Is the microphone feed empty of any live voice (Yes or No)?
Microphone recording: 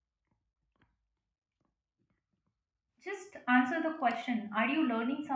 No